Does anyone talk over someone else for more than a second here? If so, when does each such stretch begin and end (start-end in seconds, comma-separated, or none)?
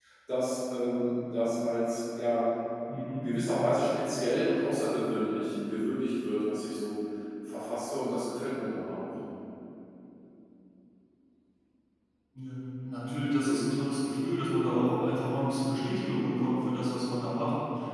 none